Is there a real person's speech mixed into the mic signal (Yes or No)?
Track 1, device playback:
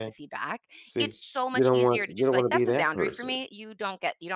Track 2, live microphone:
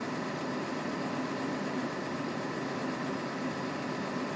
No